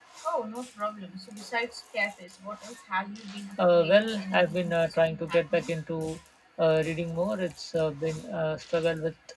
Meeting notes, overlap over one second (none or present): present